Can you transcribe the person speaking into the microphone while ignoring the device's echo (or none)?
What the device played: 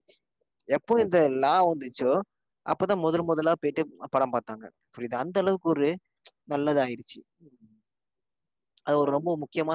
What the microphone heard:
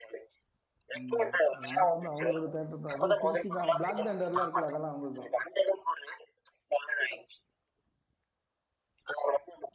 ம் அதனால வந்து அவங்களோட தேட்டர்தா அது திருச்சிதா பிளாக் ண்டர் எல்லா இருக்குல்ல அதெல்லா அவங்கல்துத